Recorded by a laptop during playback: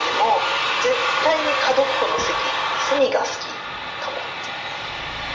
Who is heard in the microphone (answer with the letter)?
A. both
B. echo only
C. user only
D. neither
B